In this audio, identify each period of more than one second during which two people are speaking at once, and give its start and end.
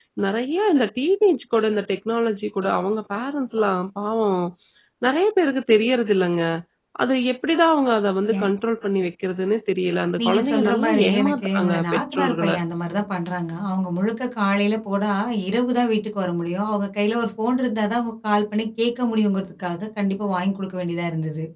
10.2-12.5

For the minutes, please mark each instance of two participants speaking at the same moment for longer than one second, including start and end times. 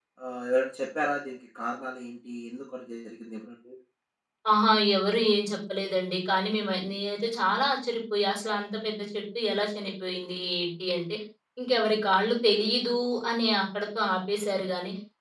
none

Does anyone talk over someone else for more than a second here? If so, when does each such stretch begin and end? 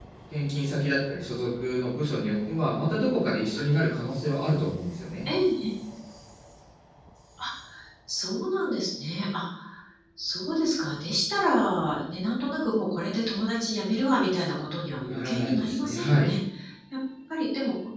15.1-16.3

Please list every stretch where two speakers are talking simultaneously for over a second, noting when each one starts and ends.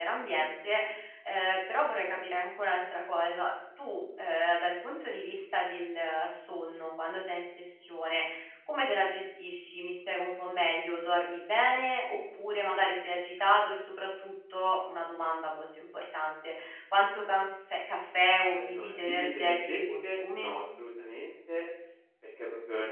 18.5-20.5

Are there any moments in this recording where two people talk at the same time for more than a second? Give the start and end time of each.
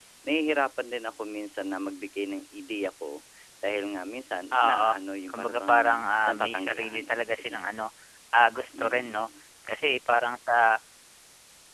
5.3-7.6

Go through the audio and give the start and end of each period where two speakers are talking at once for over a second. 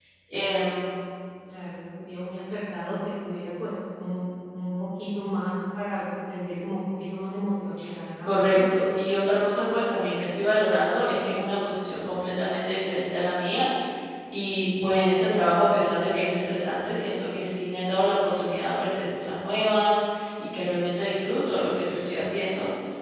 none

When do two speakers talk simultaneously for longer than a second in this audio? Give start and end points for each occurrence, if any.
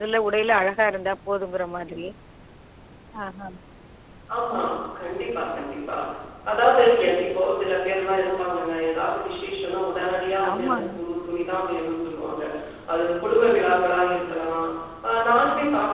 none

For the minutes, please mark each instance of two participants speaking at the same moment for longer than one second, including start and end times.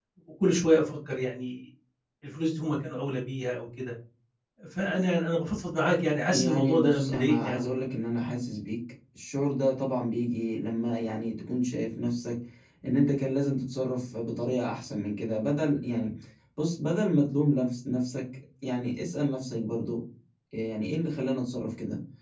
6.3-7.7

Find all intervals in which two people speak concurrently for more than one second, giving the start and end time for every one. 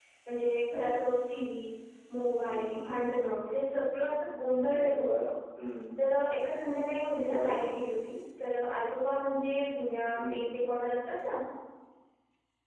none

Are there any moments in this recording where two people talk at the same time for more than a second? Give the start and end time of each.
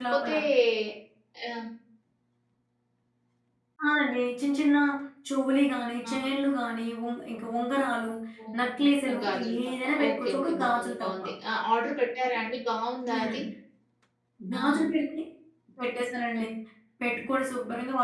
9.2-11.2

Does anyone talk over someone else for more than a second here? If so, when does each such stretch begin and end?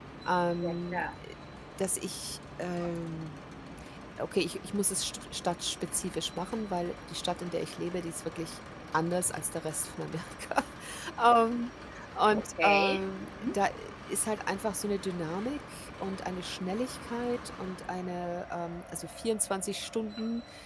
12.3-13.6

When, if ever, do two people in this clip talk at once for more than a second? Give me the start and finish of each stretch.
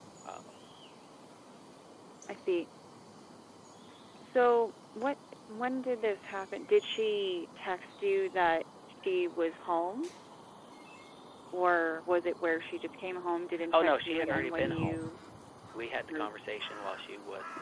13.7-15.0

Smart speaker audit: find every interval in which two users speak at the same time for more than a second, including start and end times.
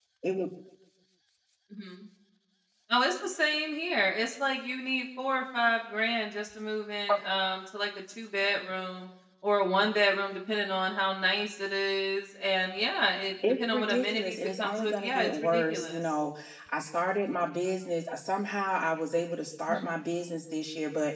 13.4-16.0

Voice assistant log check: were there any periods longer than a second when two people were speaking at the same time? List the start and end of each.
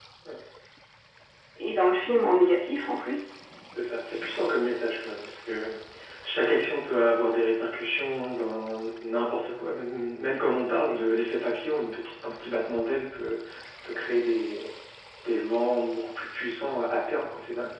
none

